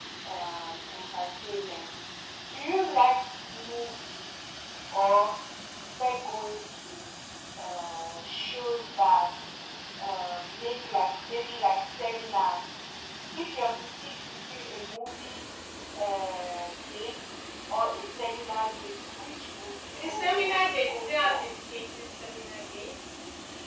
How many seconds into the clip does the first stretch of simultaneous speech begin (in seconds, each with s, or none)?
19.9 s